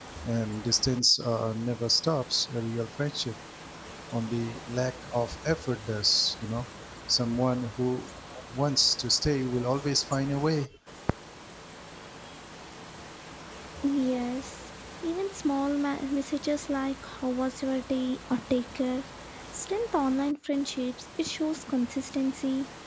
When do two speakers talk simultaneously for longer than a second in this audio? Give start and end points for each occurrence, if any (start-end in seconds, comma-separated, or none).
none